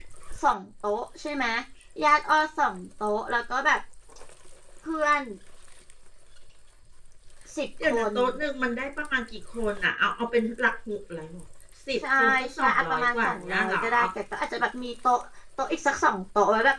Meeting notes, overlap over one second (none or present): present